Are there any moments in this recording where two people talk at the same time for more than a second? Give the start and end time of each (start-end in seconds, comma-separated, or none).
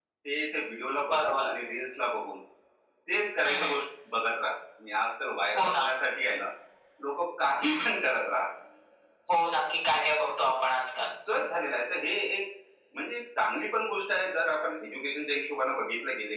none